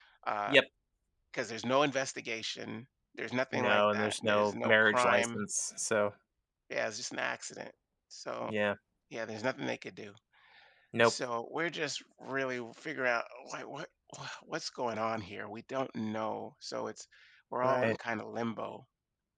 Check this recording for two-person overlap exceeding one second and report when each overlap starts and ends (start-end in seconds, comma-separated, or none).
3.5-5.4